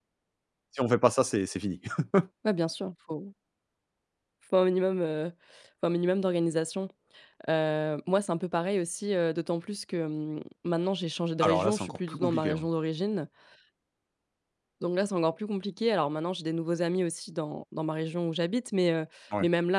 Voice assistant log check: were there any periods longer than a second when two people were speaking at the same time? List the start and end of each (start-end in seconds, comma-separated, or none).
11.4-12.6